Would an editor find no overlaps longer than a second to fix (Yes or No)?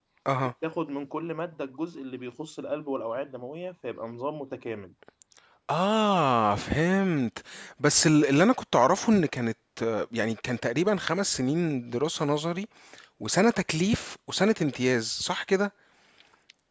Yes